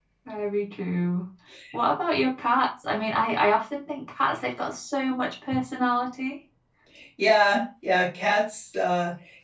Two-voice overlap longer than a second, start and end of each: none

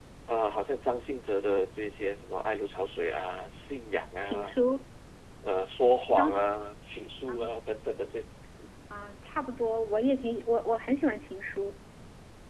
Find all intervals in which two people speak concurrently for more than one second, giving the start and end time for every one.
none

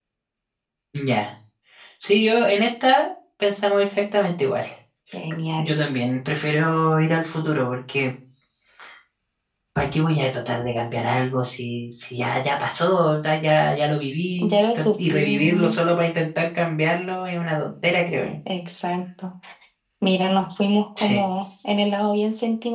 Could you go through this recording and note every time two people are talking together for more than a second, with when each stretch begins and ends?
14.5-15.8

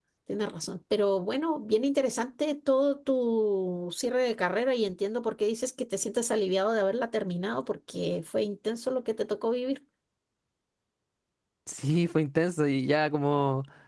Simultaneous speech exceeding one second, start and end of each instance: none

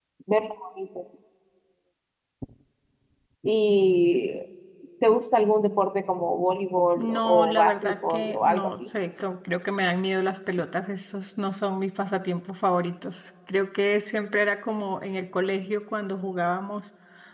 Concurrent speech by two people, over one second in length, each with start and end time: 7.0-8.9

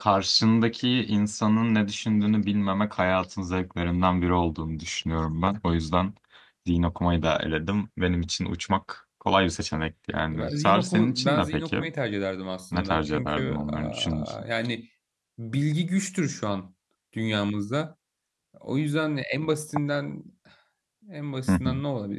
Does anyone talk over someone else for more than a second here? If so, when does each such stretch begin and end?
10.3-11.9, 12.7-14.3

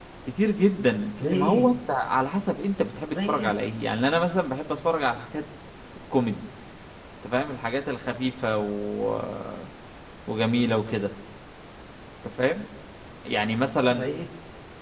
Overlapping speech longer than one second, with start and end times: none

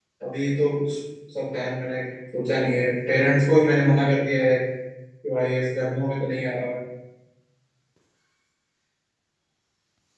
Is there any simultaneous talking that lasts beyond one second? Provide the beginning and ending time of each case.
none

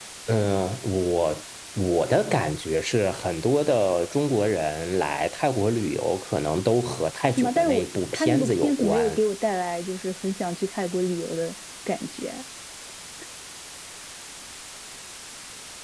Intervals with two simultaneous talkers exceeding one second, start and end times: 7.3-9.2

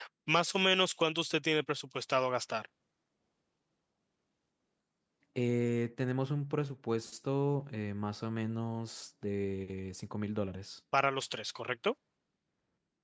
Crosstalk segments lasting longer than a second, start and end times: none

